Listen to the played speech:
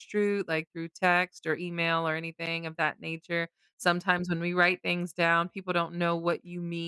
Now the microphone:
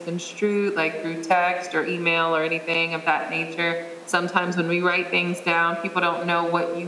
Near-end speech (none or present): none